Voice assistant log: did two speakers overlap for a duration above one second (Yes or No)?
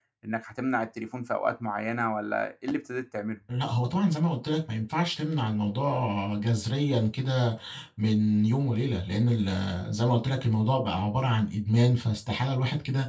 No